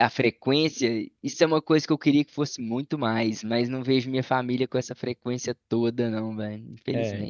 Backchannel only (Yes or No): No